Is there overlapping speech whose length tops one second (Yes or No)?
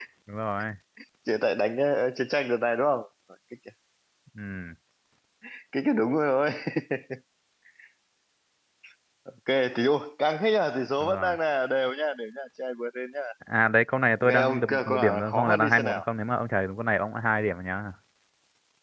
Yes